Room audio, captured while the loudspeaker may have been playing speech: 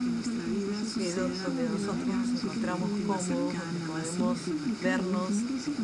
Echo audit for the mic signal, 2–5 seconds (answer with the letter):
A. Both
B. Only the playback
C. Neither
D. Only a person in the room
A